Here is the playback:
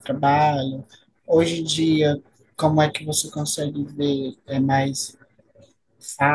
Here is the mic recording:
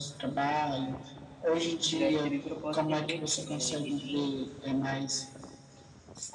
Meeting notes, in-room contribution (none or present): present